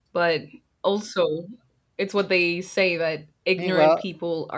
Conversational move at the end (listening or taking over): listening